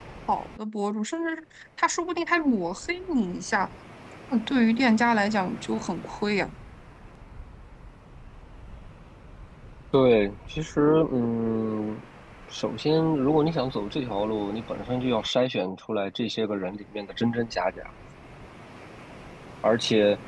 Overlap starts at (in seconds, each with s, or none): none